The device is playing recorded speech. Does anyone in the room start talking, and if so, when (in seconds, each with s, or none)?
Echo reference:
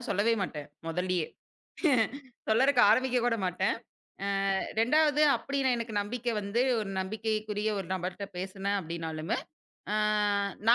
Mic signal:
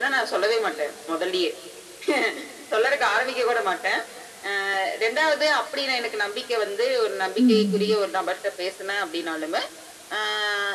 7.4 s